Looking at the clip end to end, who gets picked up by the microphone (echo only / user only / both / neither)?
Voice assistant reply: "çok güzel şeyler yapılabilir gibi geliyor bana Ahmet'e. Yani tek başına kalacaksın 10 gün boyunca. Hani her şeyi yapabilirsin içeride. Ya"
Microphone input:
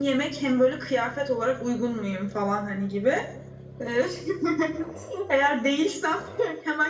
user only